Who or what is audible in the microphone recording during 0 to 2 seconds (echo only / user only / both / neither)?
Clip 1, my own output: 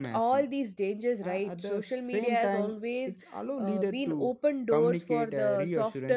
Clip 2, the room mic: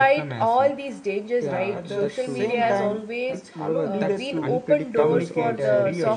both